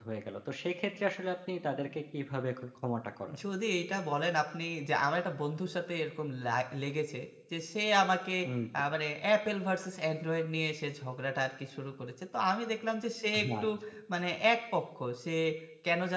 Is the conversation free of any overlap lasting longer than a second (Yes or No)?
Yes